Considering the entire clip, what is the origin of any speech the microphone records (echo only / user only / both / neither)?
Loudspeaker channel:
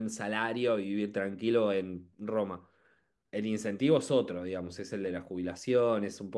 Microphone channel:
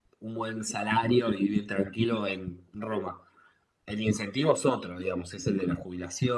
echo only